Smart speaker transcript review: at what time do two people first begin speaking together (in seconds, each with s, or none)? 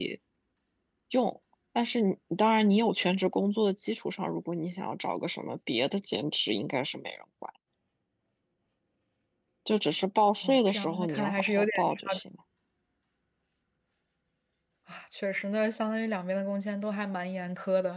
10.4 s